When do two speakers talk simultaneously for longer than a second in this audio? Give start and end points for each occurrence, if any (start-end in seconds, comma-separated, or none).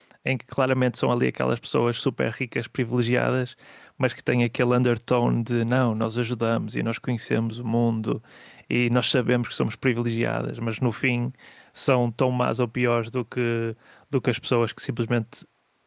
none